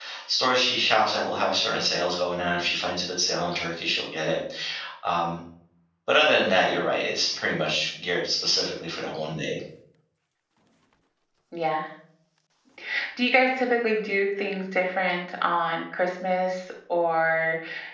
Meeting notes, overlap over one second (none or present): none